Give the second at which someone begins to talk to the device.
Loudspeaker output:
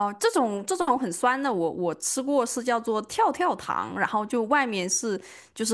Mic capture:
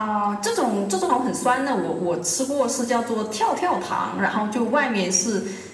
none

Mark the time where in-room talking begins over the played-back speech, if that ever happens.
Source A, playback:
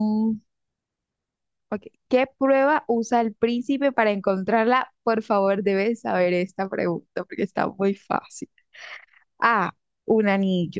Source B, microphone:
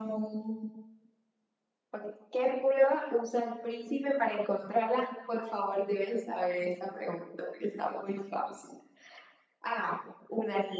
none

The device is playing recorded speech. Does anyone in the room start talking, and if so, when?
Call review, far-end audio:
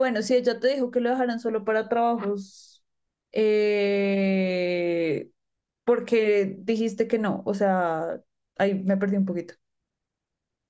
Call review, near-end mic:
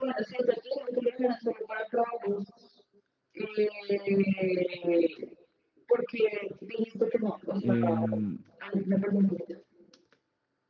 7.6 s

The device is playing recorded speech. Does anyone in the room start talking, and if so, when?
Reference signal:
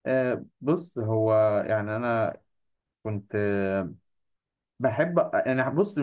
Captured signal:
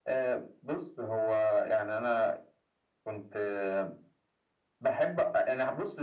none

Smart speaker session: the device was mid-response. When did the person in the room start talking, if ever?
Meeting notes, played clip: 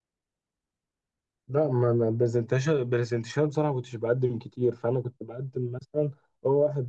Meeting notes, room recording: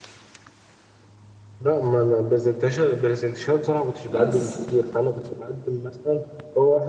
4.1 s

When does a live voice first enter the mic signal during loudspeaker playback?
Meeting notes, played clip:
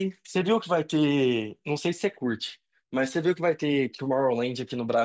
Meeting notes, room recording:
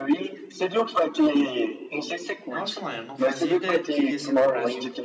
2.5 s

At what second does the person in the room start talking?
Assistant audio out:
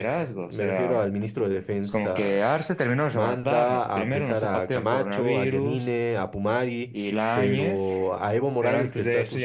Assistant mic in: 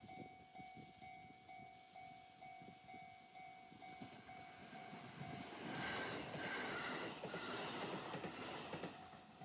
none

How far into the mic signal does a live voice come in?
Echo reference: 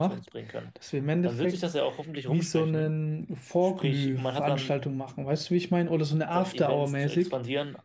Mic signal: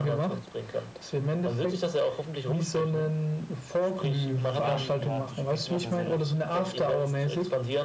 4.4 s

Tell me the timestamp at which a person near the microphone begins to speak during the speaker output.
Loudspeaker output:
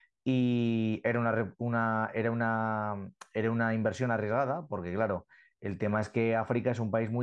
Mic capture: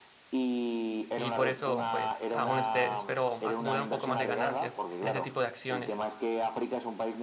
1.2 s

